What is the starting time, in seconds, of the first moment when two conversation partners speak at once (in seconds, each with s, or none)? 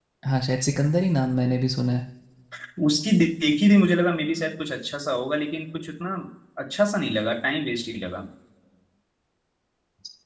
none